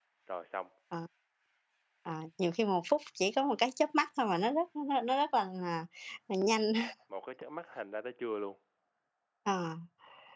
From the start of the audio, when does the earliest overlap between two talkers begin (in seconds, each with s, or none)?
none